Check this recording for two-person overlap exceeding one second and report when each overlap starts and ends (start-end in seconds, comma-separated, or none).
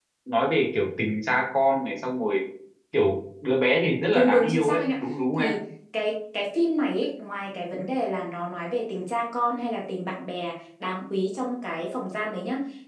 4.1-5.5